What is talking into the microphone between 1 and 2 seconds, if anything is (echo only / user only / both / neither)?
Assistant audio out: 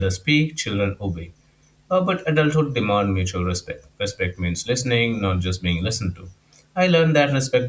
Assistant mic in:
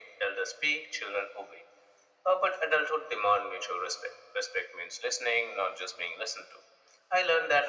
echo only